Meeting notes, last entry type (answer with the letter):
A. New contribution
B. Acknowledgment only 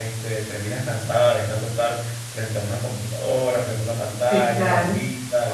A